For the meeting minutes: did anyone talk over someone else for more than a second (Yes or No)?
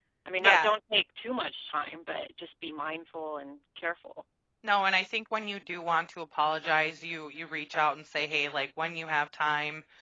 No